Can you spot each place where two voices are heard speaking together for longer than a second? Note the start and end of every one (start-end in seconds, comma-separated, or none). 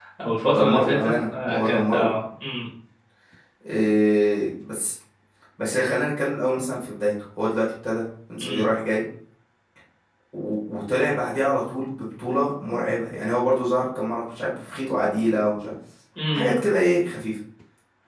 0.6-2.0